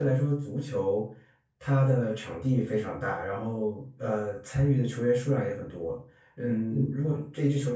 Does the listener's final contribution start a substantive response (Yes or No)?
No